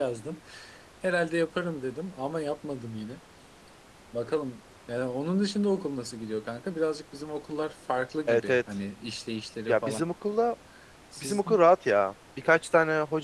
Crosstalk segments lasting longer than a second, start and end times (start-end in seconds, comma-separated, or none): none